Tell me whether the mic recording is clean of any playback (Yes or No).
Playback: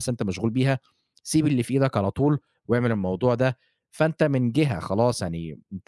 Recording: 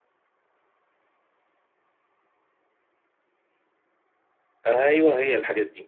Yes